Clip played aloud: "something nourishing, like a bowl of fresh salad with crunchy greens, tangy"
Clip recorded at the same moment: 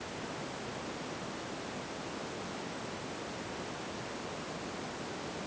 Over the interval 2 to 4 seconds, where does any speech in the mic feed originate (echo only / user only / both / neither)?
neither